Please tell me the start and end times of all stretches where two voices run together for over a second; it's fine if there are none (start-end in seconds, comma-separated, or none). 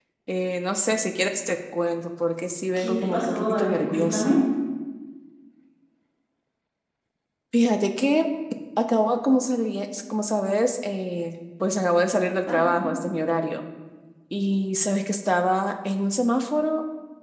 2.8-4.3